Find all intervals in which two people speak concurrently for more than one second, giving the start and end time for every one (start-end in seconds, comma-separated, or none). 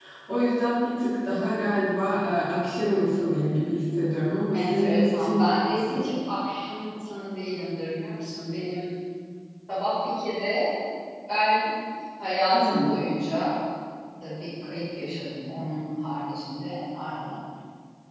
4.6-6.1